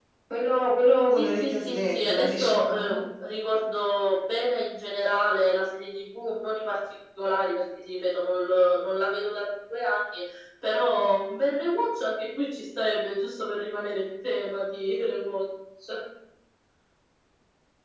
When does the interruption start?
1.2 s

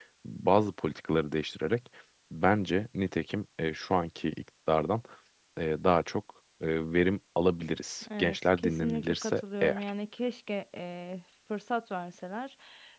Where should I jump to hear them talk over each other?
8.0 s

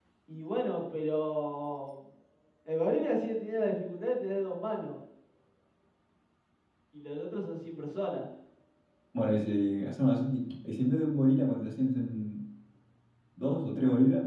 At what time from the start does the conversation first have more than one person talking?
none

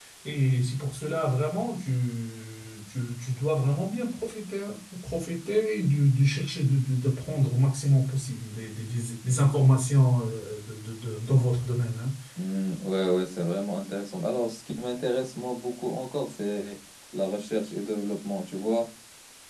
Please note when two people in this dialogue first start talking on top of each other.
none

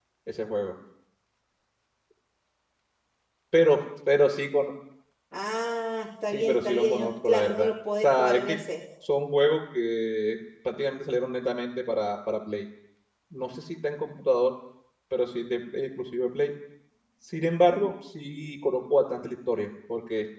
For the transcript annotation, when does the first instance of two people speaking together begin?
6.3 s

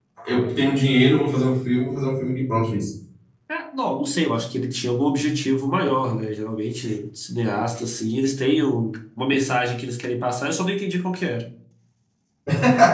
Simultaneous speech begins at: none

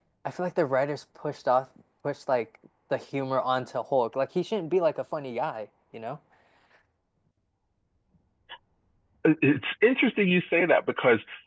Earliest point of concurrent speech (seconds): none

